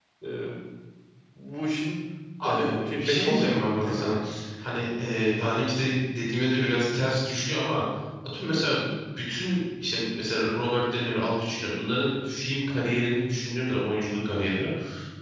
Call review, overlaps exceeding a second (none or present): present